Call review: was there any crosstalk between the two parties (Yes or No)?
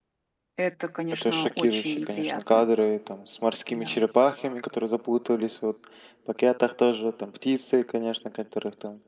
Yes